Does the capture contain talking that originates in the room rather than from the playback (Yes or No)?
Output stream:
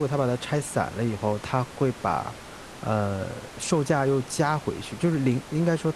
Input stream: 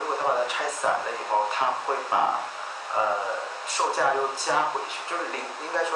No